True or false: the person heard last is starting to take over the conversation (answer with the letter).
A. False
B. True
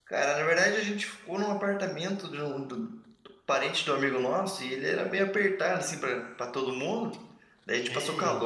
A